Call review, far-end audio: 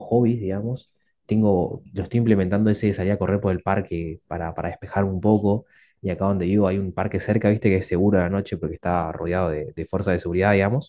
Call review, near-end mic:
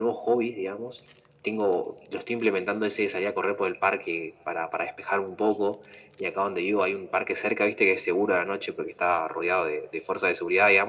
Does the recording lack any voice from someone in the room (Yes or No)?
Yes